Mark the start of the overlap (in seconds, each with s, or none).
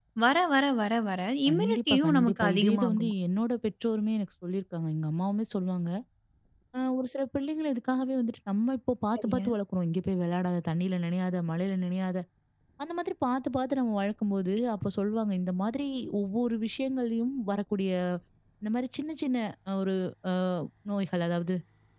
1.5 s